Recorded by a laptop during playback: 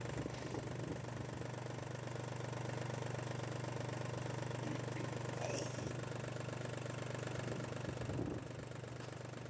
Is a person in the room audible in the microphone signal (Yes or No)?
No